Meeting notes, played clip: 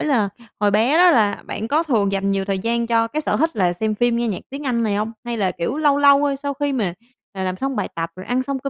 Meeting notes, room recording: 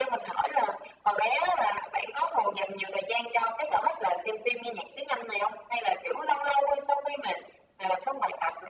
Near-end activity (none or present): none